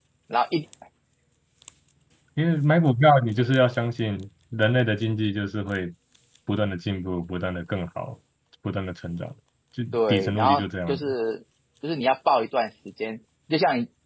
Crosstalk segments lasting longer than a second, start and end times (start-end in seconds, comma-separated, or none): 9.9-11.1